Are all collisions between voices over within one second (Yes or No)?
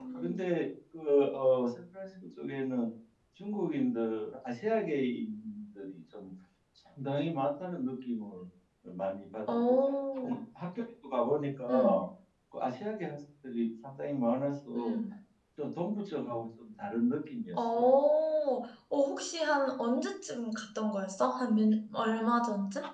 Yes